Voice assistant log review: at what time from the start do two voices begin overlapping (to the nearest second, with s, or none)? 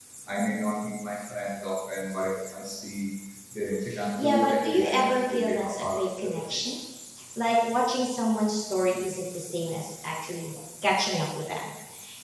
4 s